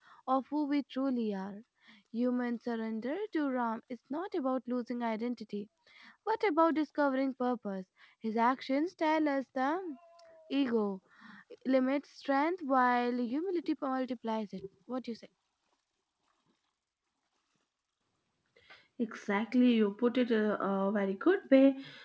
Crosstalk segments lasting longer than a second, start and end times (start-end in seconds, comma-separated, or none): none